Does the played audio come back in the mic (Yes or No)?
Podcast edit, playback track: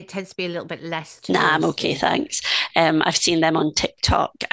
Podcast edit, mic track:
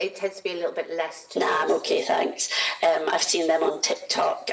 Yes